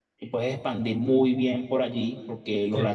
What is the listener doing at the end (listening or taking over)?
listening